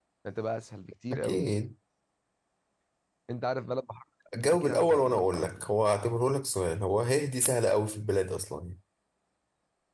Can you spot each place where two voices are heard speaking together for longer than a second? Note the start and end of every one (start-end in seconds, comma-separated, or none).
4.4-5.7